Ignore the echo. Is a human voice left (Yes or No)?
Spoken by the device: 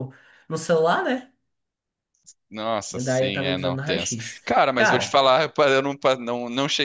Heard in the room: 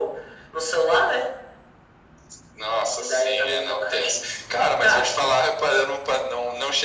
No